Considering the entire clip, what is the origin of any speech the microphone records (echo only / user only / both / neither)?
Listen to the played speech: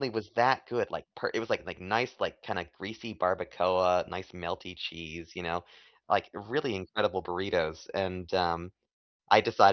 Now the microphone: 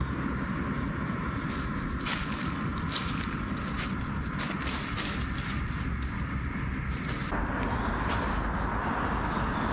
neither